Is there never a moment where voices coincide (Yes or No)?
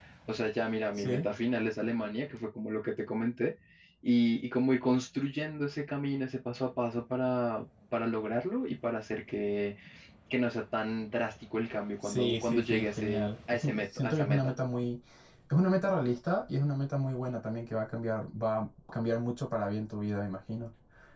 No